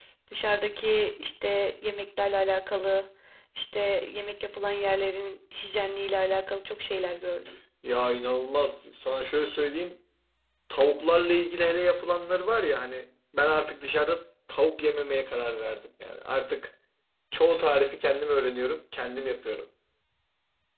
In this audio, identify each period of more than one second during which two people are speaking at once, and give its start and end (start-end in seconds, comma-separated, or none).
none